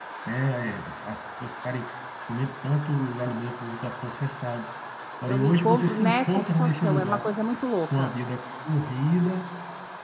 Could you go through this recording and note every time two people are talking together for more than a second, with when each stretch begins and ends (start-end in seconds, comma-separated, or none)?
5.3-7.2